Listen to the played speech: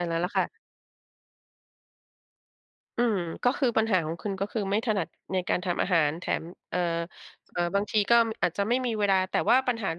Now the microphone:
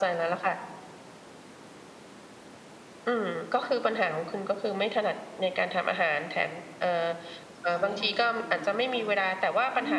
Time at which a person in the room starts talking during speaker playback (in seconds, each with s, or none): 7.7 s